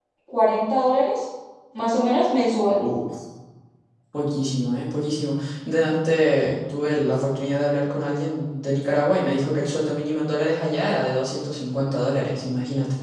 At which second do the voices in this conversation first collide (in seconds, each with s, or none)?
none